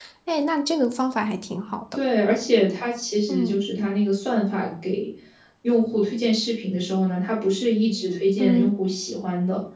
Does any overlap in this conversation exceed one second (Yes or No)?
No